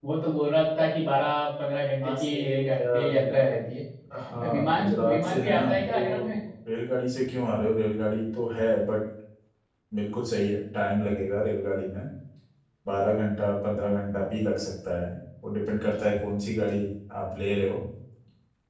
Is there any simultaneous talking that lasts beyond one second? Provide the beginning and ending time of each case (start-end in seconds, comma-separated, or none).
4.5-6.4